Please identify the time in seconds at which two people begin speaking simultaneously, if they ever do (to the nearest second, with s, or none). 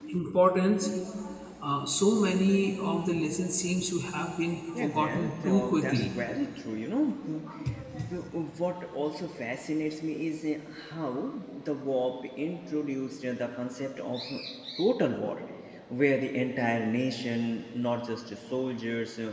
5 s